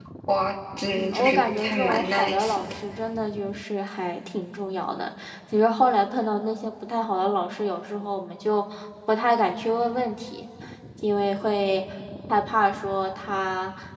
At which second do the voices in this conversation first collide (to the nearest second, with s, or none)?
1 s